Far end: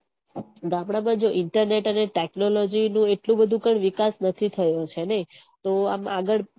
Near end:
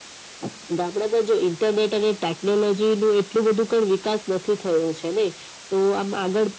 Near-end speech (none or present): none